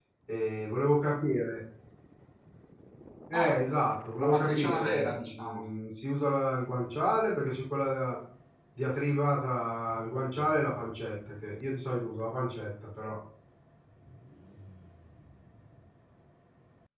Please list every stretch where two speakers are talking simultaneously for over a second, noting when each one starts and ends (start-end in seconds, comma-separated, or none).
4.2-5.6